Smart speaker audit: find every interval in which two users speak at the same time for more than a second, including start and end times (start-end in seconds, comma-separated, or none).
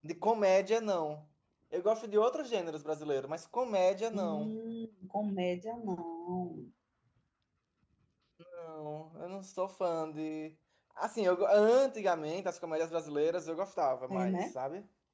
none